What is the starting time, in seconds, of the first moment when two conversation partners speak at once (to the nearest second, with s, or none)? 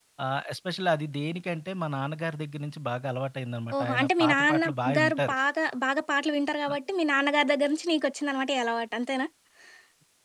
4 s